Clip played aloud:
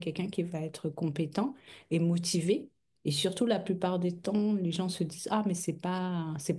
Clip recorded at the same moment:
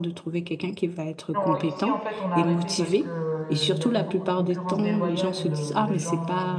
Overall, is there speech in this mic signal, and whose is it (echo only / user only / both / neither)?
both